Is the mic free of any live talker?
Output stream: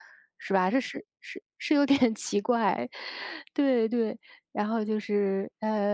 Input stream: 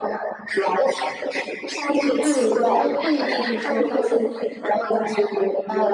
No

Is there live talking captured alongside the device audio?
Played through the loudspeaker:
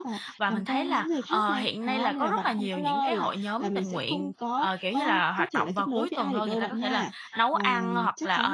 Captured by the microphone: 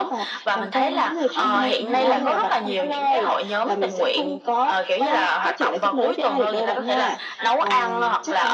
Yes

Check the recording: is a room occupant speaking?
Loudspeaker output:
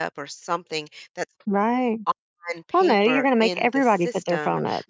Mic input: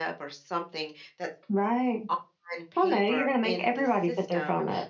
No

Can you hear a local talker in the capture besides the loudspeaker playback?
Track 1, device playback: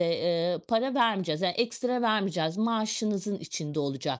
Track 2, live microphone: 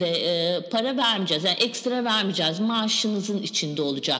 No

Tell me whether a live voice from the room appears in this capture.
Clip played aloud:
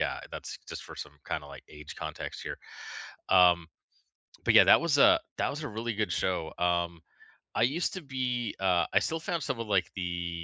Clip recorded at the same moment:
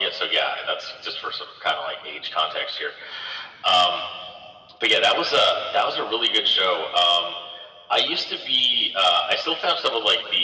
No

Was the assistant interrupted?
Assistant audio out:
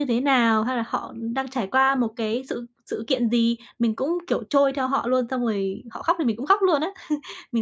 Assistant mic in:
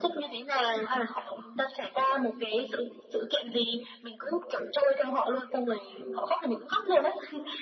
No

